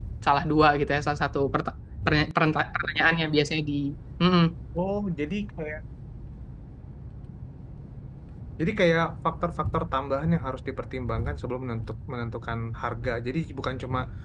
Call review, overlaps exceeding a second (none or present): none